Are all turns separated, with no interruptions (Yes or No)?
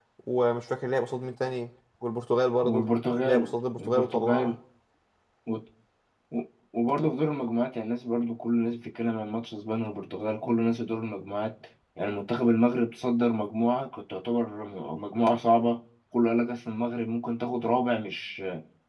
No